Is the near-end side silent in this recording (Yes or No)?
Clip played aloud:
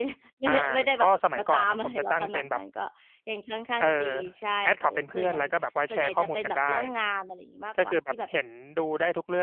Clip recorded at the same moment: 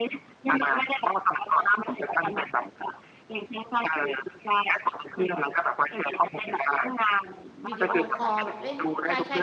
No